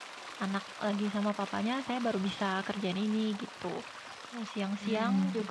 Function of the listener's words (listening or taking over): listening